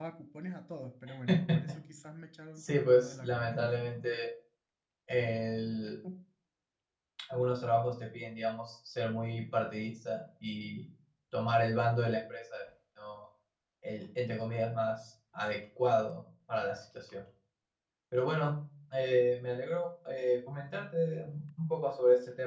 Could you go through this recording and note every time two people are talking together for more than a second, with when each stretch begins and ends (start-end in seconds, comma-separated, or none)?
2.6-3.8